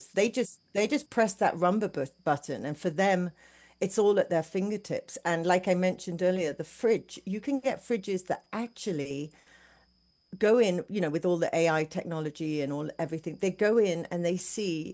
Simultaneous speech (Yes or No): No